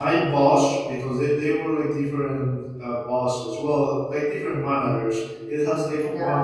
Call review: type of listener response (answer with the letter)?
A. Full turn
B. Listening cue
B